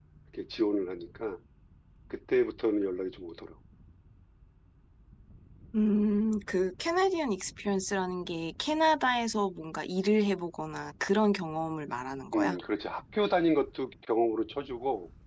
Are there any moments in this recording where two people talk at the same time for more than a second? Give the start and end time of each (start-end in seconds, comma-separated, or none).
none